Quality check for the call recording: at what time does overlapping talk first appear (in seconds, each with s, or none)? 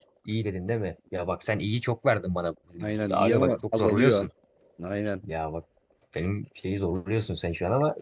2.8 s